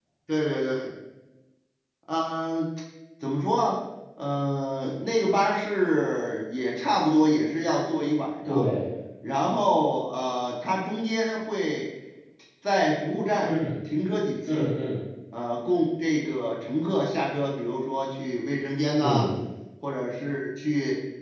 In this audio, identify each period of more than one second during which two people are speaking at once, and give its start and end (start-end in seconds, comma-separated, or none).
none